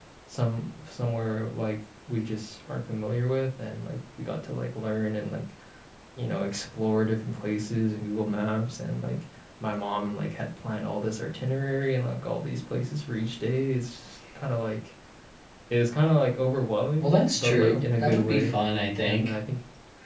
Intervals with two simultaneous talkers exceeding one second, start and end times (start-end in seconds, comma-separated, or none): 17.0-18.5